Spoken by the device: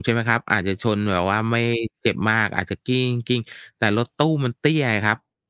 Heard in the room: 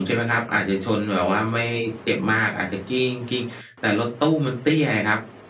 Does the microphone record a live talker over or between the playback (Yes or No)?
No